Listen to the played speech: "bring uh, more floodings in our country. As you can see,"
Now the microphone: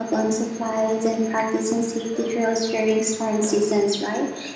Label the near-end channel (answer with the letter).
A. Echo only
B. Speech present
B